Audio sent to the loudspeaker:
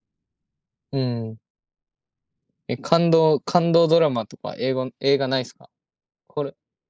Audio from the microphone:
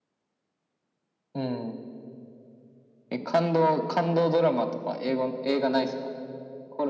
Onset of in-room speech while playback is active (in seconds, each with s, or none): none